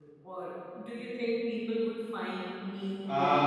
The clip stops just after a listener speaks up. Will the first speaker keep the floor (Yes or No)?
No